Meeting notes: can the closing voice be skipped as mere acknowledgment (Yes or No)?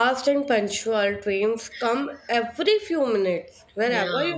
Yes